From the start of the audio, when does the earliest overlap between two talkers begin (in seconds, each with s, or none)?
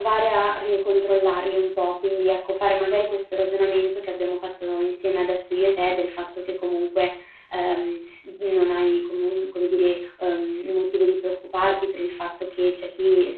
none